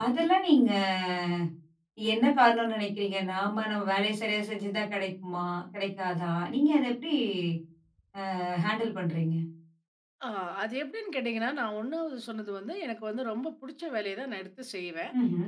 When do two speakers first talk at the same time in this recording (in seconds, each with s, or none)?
none